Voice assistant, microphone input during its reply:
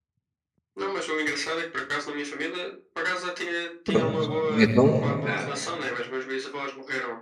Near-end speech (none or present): present